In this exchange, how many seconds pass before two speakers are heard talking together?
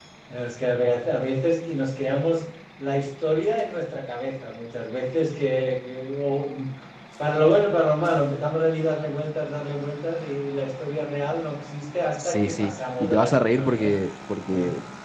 12.2 s

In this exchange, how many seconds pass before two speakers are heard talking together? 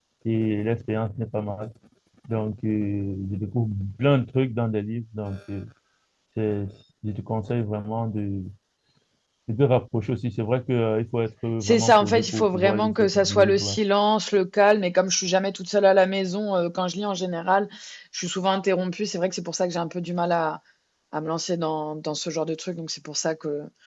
11.6 s

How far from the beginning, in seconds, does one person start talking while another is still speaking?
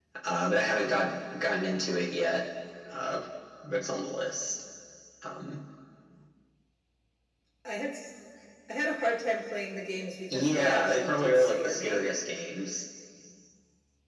10.3 s

